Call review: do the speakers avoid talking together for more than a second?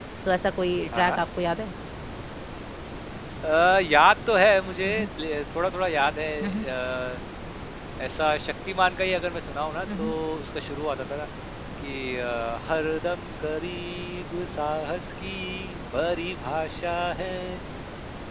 Yes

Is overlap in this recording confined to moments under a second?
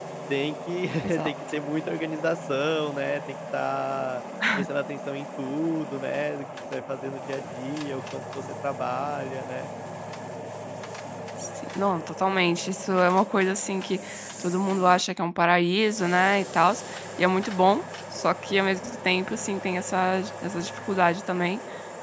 Yes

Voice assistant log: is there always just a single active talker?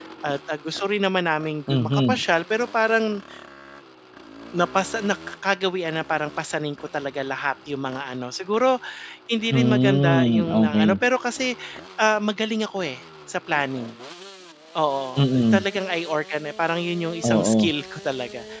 No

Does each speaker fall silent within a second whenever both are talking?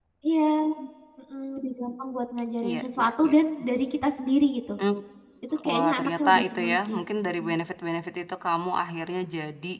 No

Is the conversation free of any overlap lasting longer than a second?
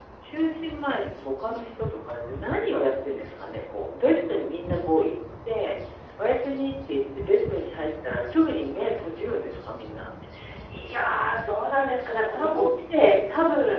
Yes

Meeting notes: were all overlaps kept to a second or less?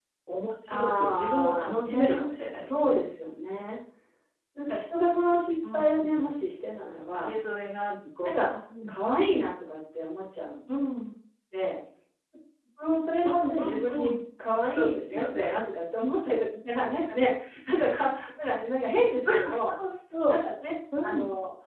No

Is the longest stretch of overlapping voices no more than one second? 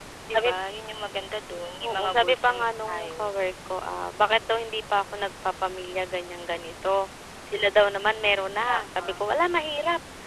No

